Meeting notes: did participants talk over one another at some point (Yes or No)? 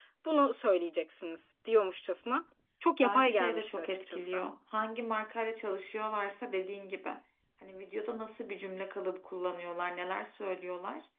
Yes